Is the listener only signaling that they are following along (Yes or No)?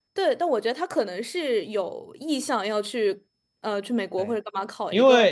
No